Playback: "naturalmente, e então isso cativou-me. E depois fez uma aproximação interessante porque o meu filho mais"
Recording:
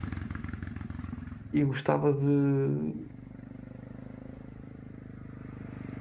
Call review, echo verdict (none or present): none